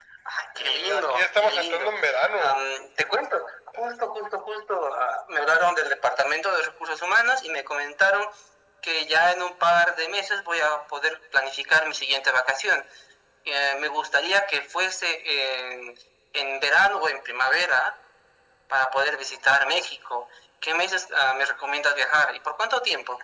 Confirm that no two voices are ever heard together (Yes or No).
No